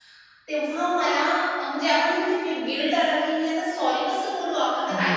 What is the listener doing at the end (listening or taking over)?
taking over